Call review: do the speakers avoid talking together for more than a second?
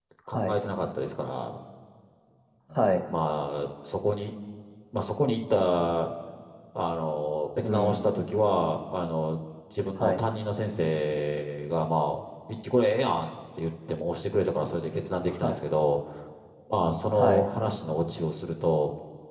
Yes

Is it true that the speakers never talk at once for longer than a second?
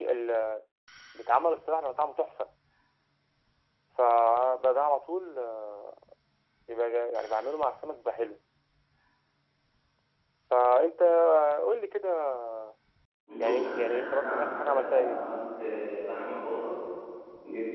No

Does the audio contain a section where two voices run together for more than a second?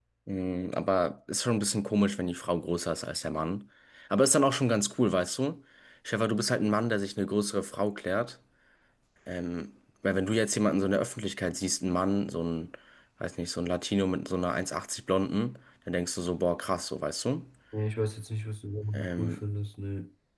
No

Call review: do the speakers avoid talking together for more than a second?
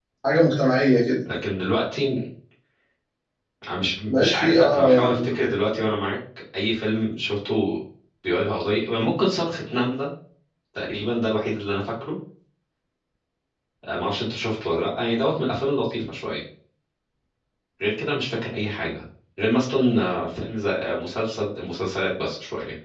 No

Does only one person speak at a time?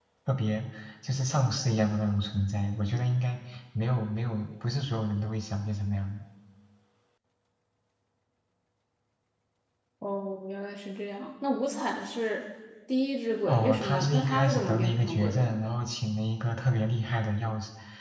No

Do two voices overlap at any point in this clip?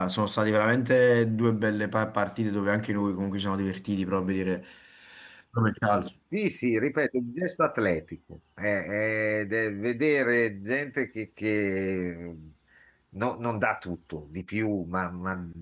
No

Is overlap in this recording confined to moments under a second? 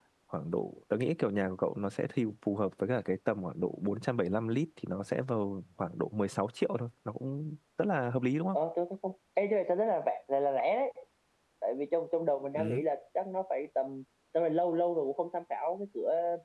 Yes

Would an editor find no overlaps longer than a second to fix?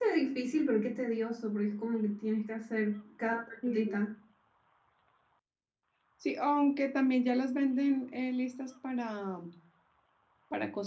Yes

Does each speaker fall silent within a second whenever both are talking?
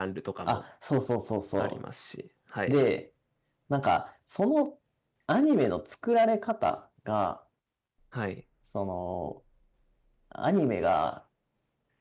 Yes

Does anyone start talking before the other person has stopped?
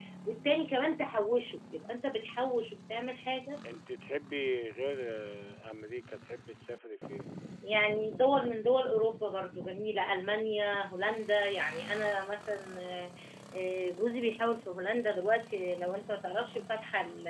No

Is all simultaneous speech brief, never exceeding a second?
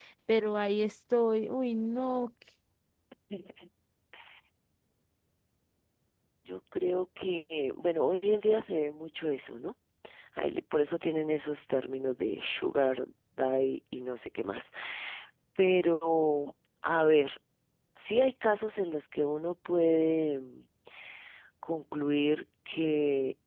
Yes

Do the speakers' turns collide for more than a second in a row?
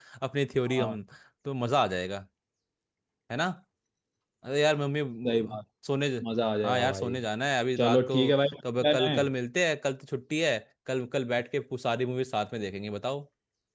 No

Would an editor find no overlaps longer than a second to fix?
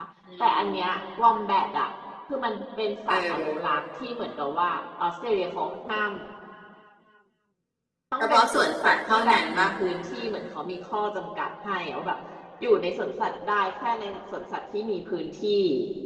No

